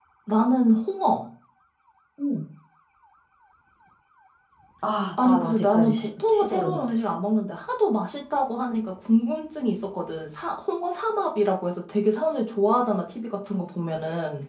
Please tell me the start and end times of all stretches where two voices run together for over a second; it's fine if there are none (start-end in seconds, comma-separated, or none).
5.2-7.2